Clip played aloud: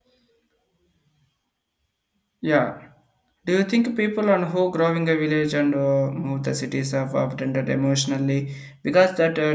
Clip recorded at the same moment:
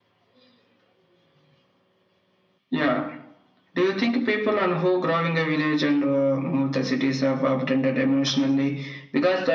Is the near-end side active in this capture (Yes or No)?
No